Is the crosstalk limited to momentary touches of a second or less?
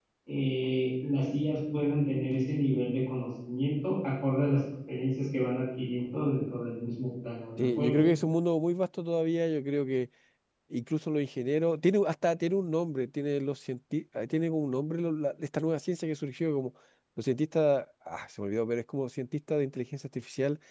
Yes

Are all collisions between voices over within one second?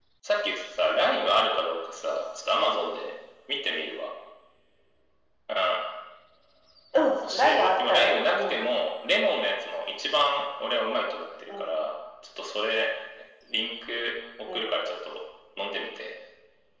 No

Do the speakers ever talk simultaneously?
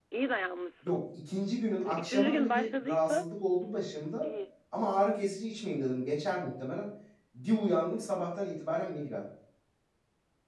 Yes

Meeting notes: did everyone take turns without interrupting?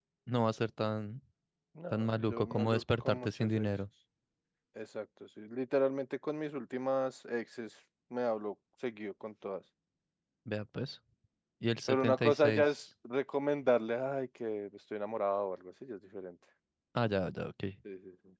No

